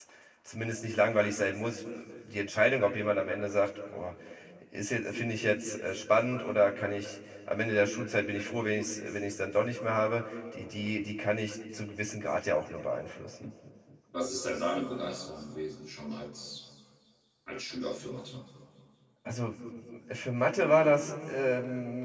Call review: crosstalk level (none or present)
none